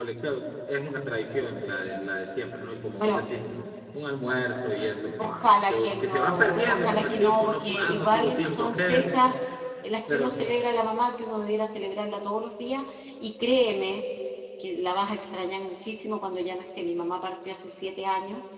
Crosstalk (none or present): present